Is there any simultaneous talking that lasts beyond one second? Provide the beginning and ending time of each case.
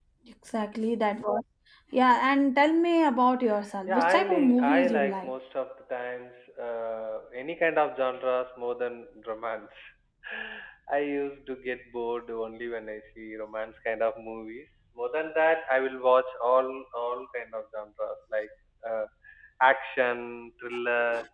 3.9-5.3

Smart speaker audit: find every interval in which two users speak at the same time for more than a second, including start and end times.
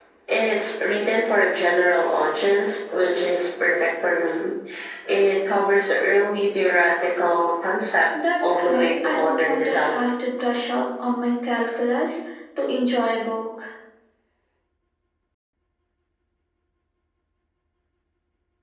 8.4-10.0

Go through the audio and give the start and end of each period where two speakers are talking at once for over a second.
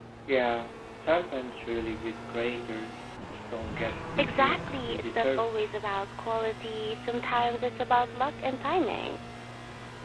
4.2-5.5

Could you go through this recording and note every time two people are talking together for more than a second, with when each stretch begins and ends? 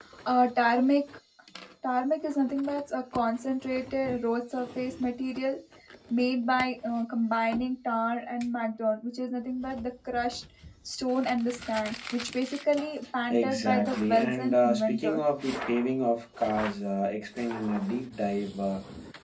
13.3-15.2

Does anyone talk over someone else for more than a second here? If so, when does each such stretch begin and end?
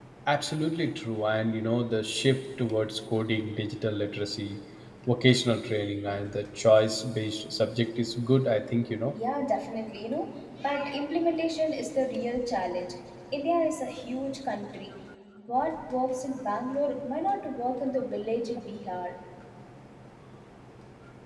none

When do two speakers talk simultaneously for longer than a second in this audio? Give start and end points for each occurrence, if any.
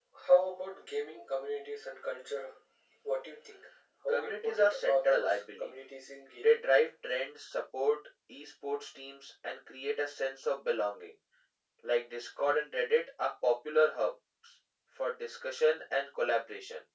4.1-5.8

